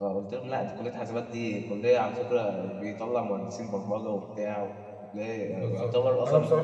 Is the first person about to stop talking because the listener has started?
Yes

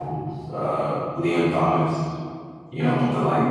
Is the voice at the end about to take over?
No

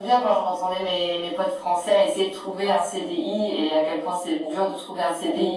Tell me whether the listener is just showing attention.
Yes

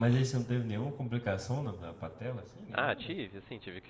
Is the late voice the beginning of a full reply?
Yes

